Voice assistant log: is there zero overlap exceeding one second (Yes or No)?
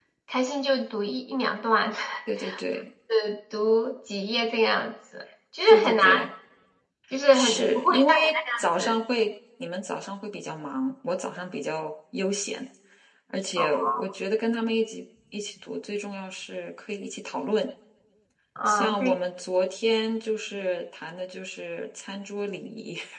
No